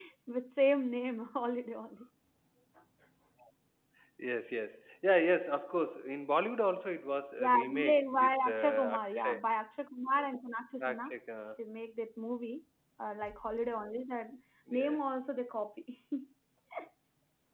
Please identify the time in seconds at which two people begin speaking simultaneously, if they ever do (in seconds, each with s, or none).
7.4 s